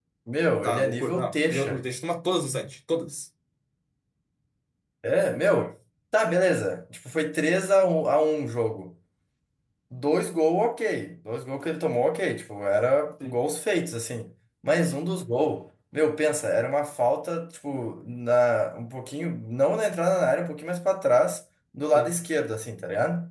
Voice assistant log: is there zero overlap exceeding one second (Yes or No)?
No